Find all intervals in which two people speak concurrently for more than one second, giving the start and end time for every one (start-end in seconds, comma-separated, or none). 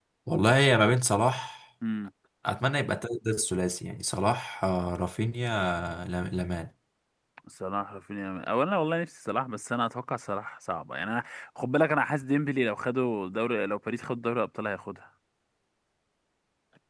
none